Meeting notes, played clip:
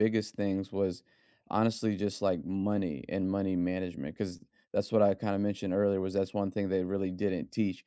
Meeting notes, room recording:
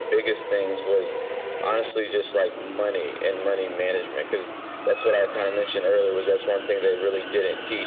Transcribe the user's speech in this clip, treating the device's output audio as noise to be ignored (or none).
none